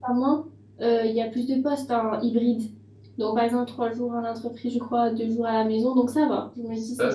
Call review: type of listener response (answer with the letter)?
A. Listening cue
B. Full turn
B